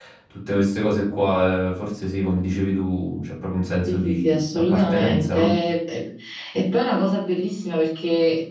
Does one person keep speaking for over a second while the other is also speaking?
Yes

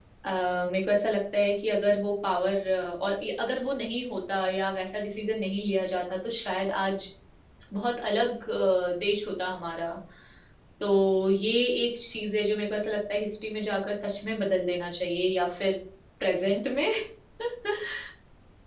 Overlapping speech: No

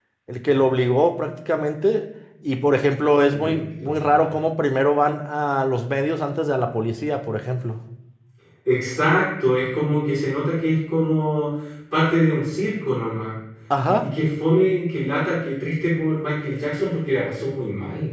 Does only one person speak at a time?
No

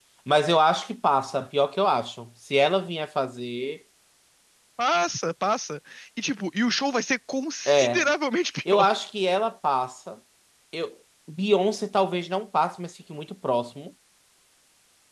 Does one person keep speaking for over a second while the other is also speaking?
No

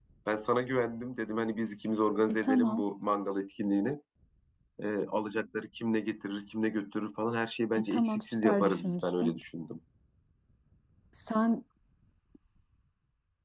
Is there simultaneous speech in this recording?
Yes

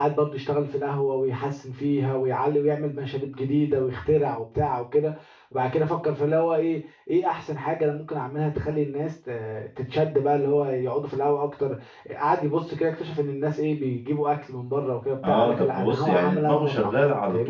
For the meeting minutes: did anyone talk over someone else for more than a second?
Yes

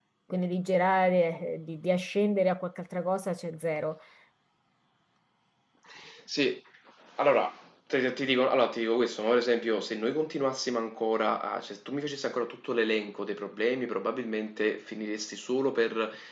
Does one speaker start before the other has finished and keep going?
No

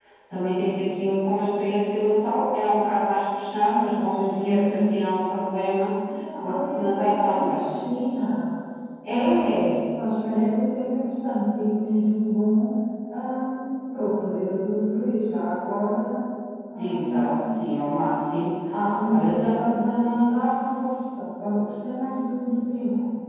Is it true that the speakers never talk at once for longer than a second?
No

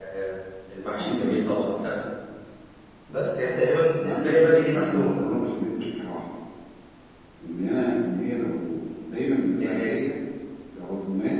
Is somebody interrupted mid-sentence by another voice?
Yes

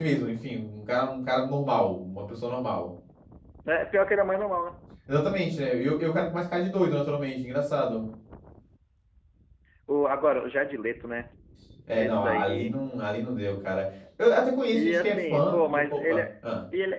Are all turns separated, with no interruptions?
No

